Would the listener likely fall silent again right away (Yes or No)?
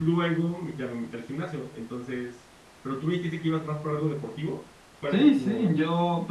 No